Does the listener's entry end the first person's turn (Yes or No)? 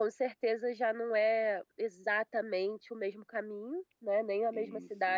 No